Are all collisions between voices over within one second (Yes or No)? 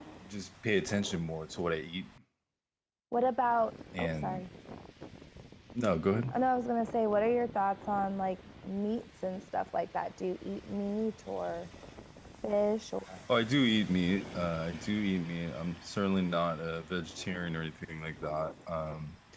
Yes